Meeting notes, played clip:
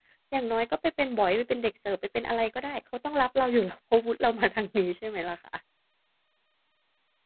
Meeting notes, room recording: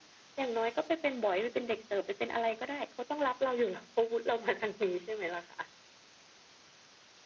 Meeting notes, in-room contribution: none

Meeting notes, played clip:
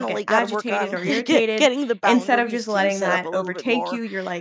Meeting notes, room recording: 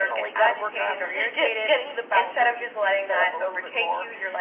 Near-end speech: none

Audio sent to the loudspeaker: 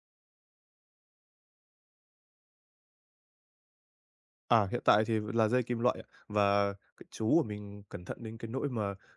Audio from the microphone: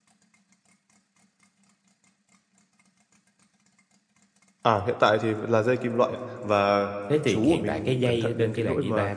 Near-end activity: present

